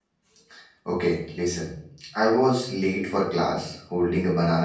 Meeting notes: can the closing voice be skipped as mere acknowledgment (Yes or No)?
Yes